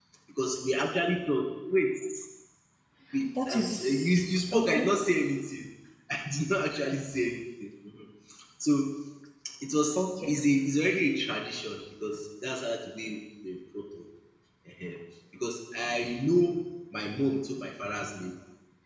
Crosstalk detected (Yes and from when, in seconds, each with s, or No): Yes, from 3.5 s